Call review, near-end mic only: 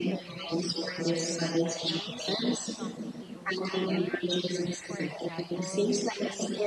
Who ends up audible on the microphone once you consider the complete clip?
both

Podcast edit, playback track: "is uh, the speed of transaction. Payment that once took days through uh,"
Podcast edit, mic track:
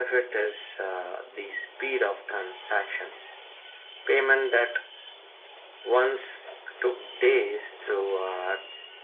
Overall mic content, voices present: echo only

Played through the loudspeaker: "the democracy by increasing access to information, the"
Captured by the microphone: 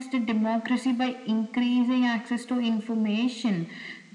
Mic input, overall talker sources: echo only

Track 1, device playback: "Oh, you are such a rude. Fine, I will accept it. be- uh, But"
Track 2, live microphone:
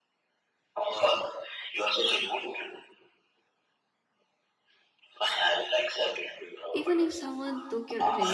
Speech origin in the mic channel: both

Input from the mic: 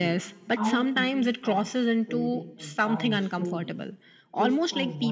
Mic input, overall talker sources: both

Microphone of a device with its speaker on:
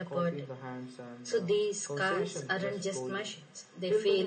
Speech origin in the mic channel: echo only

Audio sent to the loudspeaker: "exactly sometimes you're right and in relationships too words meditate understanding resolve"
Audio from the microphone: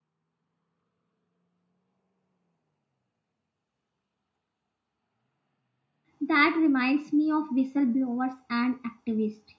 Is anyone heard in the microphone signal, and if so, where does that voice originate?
user only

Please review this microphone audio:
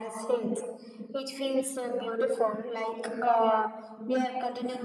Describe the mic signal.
echo only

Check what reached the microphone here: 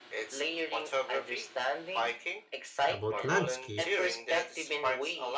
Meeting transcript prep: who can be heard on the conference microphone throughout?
both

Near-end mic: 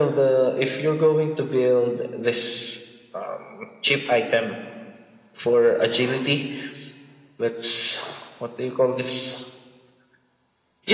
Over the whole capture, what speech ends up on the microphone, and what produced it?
echo only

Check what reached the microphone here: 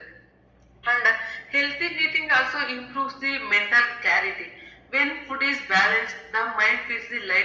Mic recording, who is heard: echo only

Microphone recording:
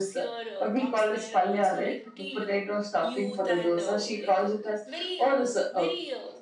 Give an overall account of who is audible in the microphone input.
both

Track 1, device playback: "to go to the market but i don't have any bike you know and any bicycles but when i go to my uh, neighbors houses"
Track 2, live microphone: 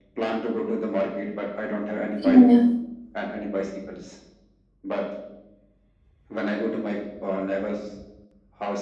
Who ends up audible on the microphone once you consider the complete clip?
both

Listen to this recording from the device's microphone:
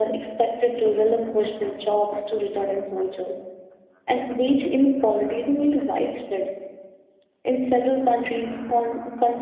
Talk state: echo only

